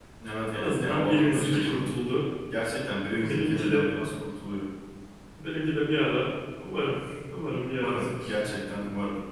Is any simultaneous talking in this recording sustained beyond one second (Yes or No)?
Yes